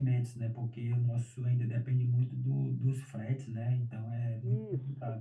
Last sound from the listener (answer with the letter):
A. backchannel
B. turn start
B